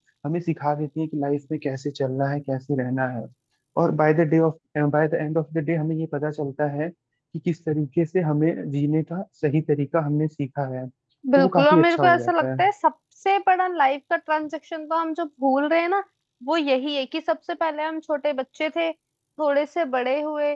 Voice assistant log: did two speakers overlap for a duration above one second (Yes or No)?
Yes